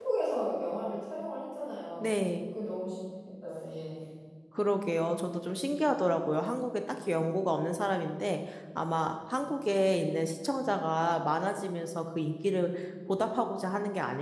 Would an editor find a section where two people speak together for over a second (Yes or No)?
No